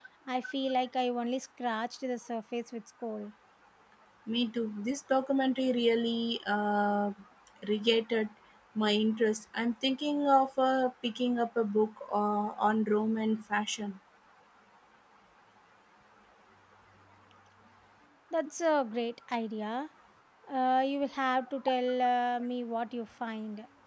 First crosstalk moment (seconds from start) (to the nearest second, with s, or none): none